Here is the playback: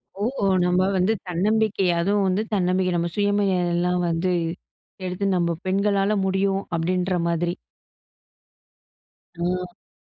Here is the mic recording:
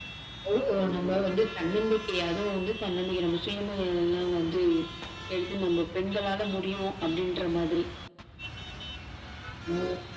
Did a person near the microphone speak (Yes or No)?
No